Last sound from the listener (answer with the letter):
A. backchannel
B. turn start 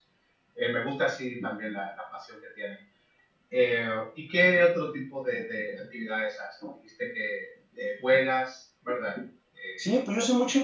B